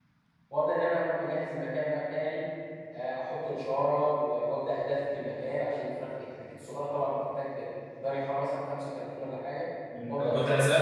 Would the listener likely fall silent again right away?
No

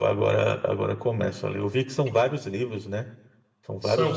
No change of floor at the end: No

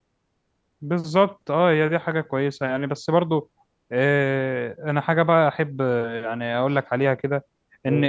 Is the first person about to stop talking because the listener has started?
No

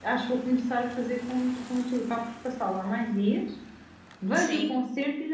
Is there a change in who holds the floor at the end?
No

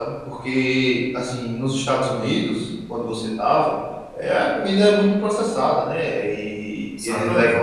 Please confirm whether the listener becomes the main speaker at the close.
No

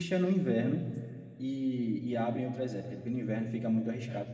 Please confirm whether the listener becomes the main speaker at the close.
Yes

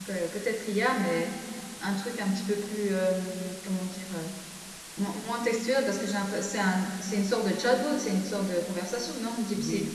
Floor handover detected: Yes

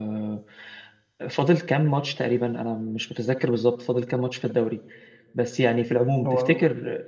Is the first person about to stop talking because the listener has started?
No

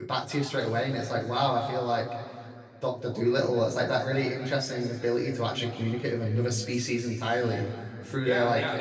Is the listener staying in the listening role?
No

